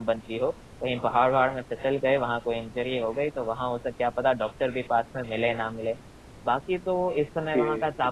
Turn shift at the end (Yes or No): No